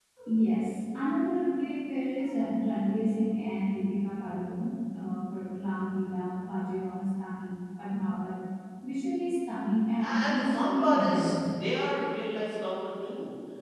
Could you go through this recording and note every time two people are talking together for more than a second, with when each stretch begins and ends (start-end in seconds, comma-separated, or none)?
10.0-11.3